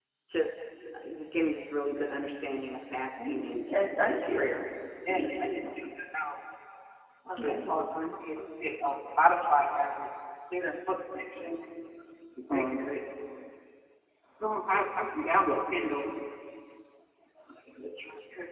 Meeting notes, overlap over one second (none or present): present